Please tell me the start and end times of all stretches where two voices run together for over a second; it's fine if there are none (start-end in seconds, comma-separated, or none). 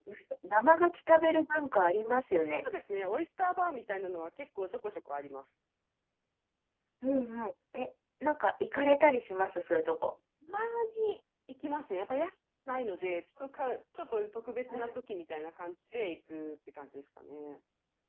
none